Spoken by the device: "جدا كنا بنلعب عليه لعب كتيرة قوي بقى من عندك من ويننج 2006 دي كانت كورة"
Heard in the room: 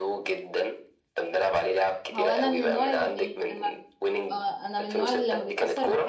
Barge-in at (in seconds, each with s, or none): 2.1 s